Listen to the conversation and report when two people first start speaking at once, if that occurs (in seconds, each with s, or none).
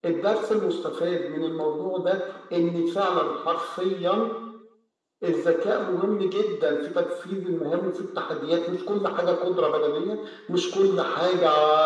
none